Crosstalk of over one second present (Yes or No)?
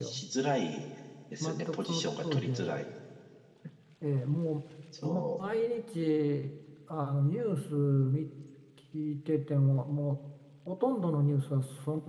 Yes